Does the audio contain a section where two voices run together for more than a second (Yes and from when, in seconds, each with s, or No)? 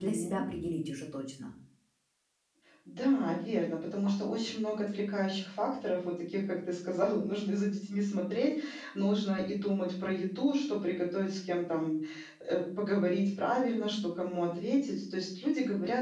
No